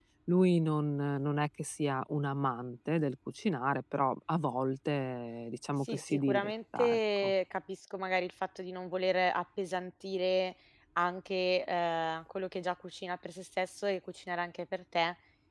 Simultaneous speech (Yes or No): Yes